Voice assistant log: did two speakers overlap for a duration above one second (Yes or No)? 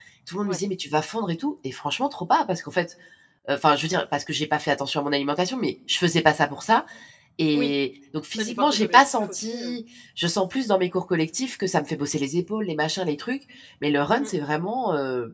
Yes